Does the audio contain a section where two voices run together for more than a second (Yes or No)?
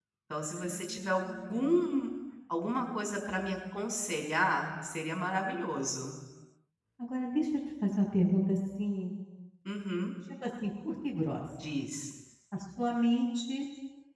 Yes